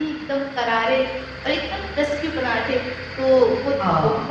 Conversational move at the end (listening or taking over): listening